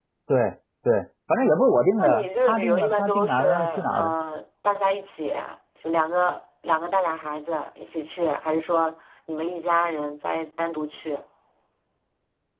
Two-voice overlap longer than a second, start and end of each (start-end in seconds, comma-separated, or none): 2.0-4.1